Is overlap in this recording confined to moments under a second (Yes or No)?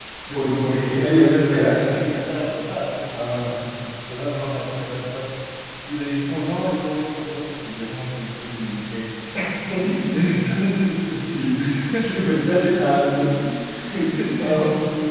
No